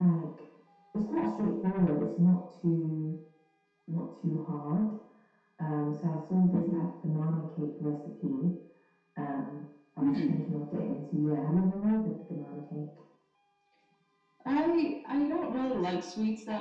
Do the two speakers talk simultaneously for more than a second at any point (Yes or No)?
No